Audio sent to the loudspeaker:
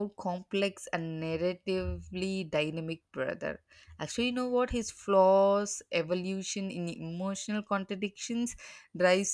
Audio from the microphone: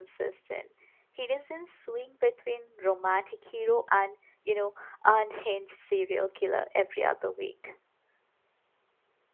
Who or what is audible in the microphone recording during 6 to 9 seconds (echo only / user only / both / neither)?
user only